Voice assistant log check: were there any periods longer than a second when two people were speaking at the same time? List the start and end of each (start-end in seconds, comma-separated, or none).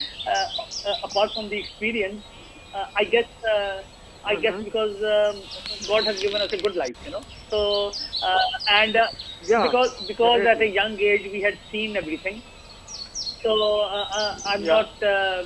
none